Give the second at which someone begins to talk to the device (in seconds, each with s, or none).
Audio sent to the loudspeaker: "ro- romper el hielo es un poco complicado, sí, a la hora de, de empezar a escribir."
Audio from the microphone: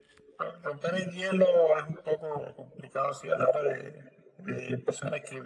none